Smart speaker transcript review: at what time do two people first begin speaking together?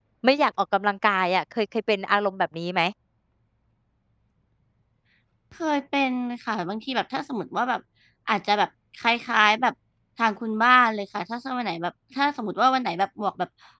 none

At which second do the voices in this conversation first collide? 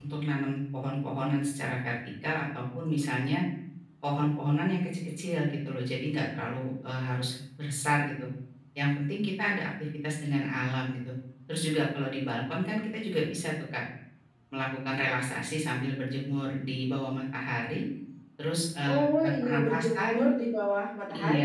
18.8 s

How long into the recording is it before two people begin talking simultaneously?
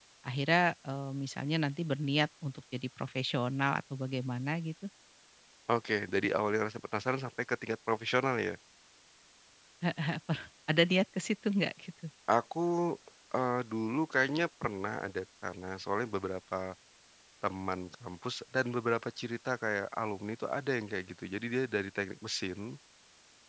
none

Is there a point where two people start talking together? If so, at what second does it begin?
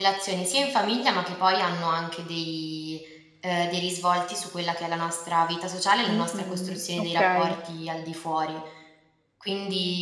6.1 s

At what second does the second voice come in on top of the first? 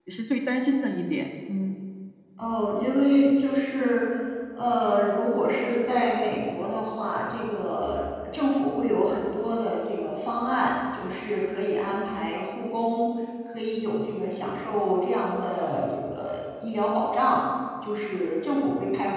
none

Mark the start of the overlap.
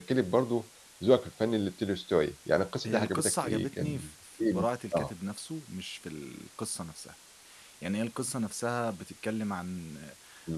2.8 s

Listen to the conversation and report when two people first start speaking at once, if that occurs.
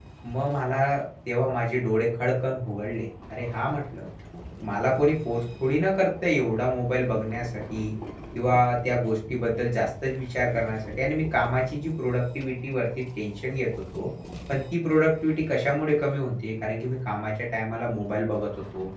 none

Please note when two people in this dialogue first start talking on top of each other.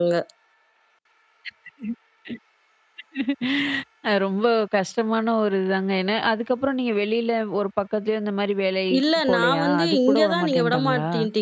8.9 s

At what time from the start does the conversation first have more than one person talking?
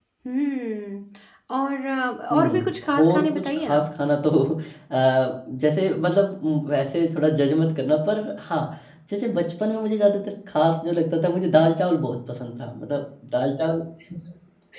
2.3 s

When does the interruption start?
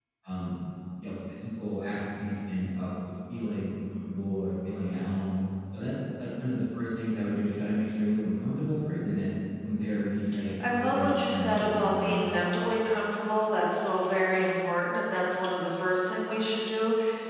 10.7 s

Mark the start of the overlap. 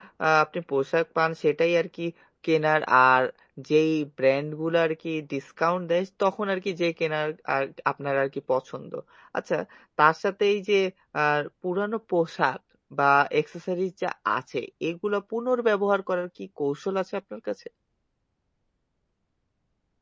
none

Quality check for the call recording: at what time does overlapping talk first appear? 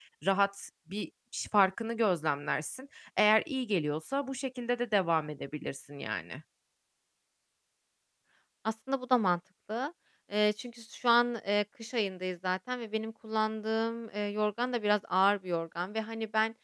none

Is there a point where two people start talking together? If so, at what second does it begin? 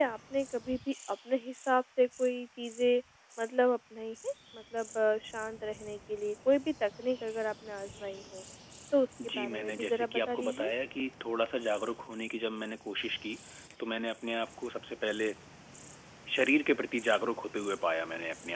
9.2 s

